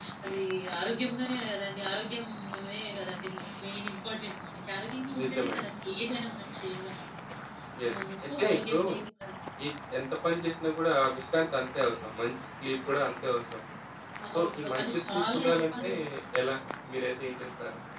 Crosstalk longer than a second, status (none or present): present